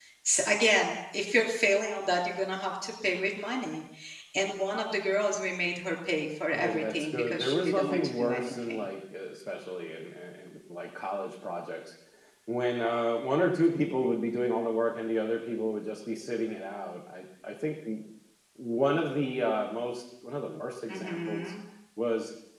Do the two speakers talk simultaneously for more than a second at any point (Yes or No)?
Yes